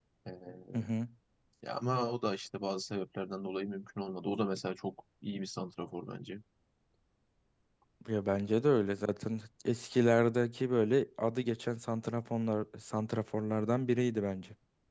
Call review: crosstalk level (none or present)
none